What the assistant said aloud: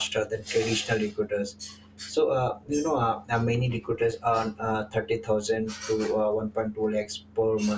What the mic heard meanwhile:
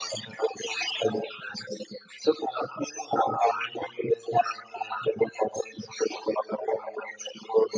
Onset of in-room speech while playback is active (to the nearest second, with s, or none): none